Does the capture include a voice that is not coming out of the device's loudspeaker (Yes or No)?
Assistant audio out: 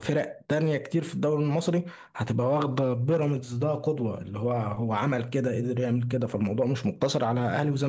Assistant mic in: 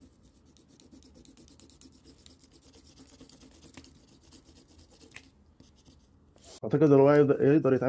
Yes